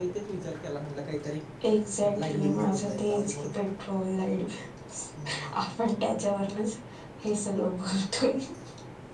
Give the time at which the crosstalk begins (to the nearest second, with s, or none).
2 s